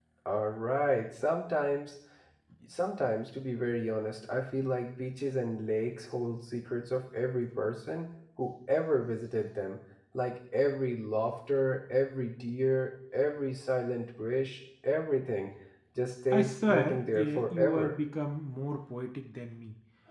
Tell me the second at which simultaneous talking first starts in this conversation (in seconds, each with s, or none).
16.3 s